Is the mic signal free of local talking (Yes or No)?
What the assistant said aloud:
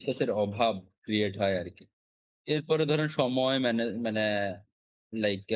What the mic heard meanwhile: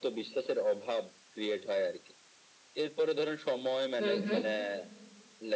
No